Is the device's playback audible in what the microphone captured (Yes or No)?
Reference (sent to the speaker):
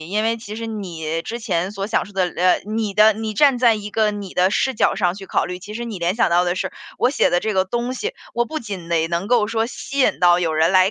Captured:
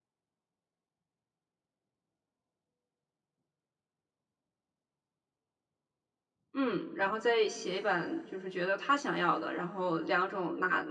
No